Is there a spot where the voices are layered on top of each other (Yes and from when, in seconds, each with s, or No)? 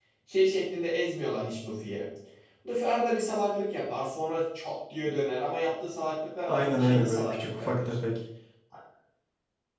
Yes, from 6.4 s